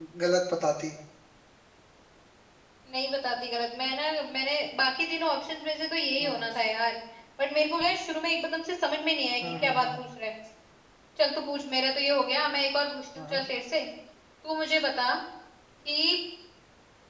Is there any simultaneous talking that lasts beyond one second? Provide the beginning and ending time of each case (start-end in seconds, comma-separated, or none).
none